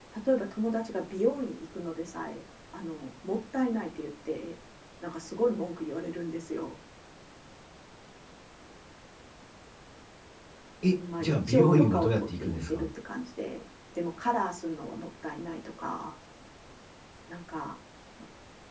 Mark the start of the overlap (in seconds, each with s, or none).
10.9 s